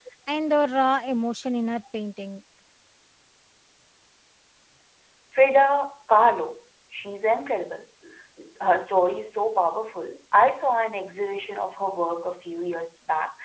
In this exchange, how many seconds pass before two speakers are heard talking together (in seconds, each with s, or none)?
none